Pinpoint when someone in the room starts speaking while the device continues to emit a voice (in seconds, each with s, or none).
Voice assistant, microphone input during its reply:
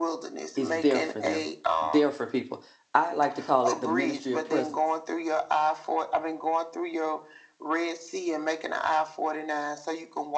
0.5 s